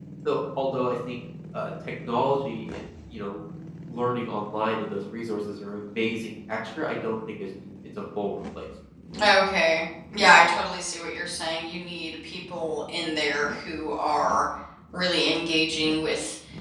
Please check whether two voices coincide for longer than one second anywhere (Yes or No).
No